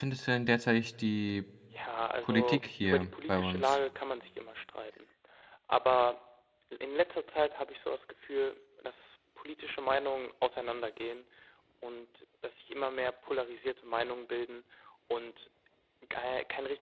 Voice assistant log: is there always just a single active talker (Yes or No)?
No